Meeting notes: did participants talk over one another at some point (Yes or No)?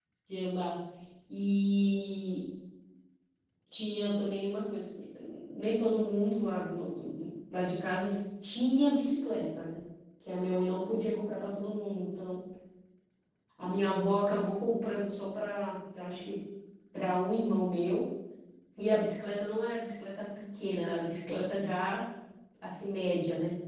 No